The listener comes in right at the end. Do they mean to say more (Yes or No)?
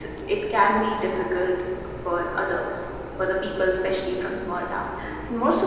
No